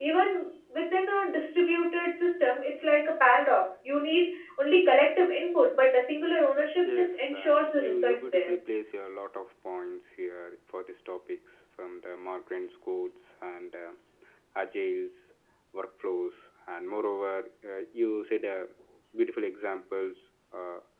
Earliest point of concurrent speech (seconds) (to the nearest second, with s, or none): 7 s